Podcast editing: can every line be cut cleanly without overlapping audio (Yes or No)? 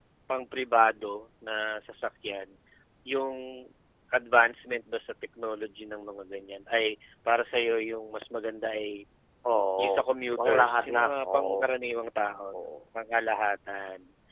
No